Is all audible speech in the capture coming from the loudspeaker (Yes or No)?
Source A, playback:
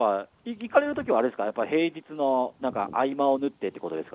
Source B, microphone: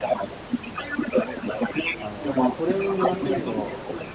No